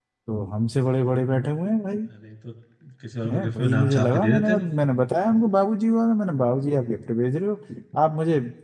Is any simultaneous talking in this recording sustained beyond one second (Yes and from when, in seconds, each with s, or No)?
Yes, from 3.3 s